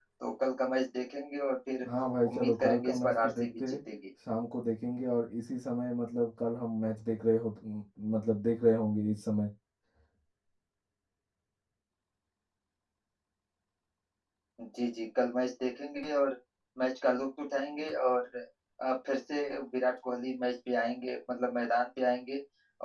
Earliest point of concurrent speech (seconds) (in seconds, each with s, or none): 2.3 s